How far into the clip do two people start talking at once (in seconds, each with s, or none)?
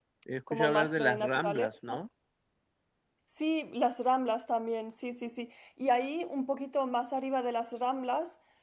0.5 s